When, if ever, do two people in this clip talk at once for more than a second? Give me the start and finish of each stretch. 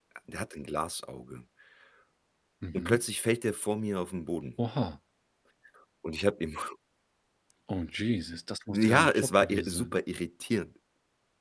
8.7-9.9

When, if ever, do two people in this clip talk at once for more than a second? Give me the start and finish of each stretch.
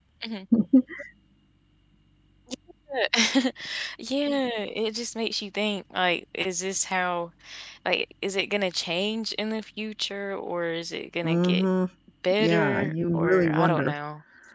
12.4-13.9

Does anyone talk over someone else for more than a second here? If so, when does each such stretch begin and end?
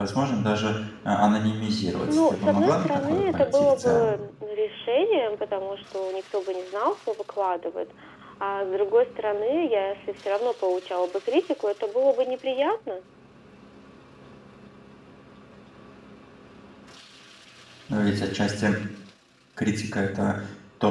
2.1-4.2

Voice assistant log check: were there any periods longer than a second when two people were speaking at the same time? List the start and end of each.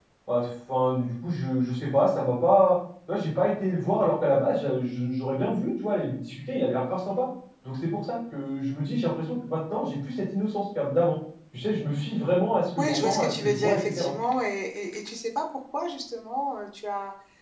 12.8-14.1

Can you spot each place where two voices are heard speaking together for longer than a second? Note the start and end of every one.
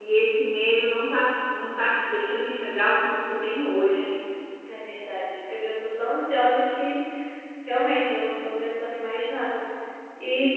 none

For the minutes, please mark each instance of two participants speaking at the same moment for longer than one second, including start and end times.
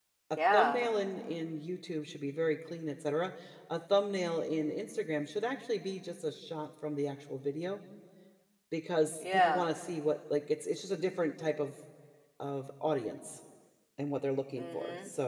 none

